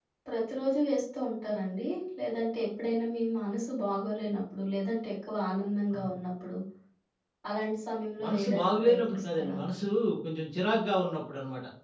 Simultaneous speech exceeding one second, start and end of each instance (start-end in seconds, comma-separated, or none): 8.2-9.6